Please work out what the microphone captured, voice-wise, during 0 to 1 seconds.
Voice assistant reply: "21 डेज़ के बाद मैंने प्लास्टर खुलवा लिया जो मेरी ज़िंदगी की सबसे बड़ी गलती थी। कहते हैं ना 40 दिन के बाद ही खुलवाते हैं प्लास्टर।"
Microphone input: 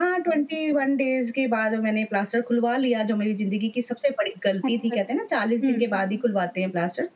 echo only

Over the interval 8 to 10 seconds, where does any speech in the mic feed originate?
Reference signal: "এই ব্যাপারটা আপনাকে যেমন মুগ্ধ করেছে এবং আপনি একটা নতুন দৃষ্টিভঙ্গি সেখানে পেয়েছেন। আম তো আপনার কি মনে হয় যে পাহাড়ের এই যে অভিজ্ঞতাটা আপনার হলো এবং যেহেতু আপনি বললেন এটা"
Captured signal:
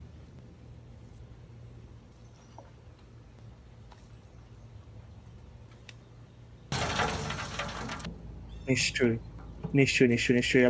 user only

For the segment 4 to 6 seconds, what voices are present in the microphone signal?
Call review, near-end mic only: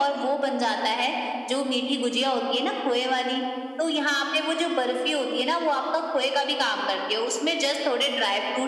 echo only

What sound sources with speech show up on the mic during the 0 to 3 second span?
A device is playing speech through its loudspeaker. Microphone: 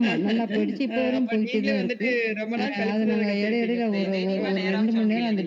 echo only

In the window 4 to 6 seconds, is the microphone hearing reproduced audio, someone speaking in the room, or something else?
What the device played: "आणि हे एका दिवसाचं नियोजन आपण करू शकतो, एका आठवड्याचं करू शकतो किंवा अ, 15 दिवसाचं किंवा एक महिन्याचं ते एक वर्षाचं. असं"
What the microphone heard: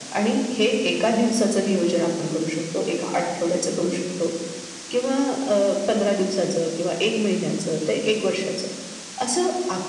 echo only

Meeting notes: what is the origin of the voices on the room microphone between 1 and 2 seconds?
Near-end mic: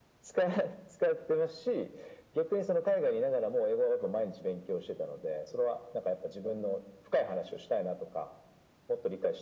echo only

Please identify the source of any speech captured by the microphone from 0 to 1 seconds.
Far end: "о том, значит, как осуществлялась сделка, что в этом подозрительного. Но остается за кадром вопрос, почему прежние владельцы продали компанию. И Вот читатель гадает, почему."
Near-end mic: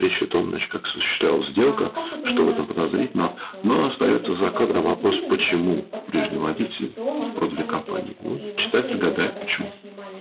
echo only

